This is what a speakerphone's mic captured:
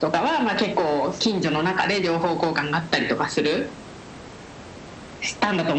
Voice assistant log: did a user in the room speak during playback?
No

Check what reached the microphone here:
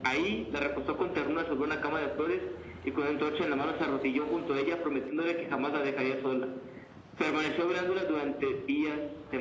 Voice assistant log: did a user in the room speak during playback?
No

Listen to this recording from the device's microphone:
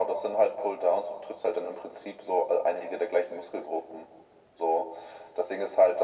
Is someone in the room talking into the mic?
No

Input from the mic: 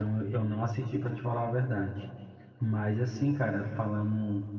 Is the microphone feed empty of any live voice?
No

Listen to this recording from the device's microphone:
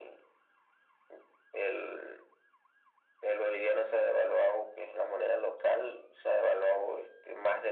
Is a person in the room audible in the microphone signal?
No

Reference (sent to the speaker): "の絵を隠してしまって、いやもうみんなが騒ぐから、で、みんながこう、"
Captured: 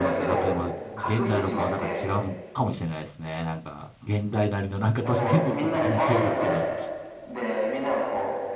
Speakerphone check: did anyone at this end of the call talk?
Yes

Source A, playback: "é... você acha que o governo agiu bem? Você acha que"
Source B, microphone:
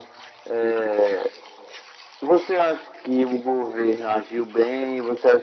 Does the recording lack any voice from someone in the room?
Yes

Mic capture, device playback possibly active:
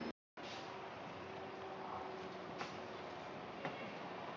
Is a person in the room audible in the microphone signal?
No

